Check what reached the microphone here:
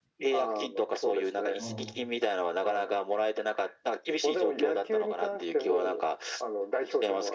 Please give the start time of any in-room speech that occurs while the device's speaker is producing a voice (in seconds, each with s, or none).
1.6 s